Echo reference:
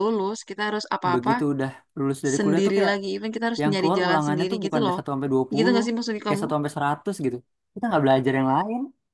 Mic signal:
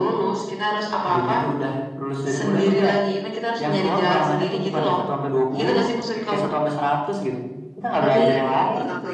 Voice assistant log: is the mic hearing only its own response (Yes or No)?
No